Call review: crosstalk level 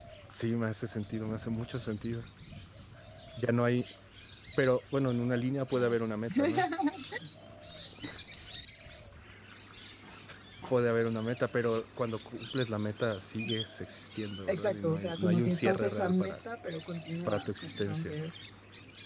present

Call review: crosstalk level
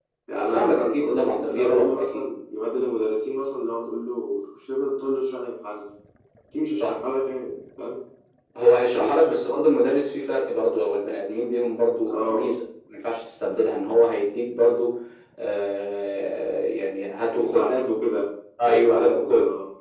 present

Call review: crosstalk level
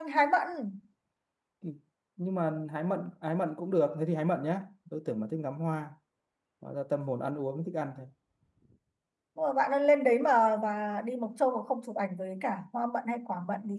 none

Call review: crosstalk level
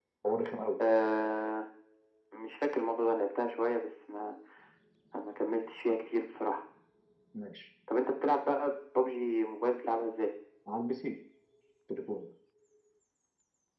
none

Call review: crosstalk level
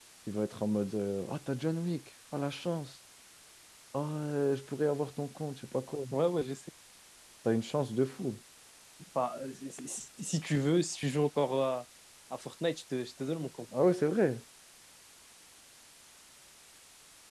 none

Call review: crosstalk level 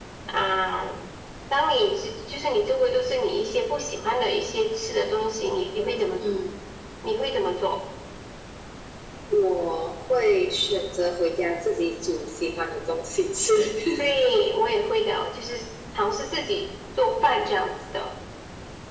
none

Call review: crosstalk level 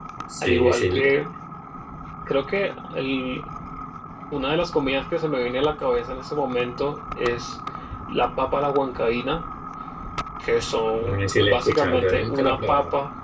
present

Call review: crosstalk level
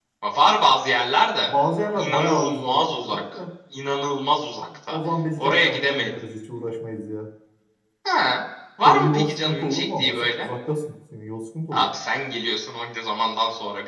present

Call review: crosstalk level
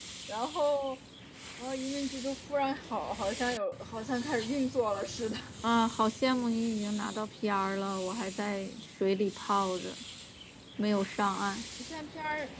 none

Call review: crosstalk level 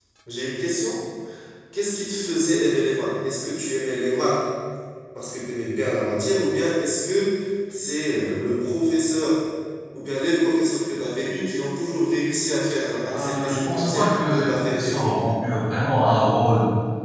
present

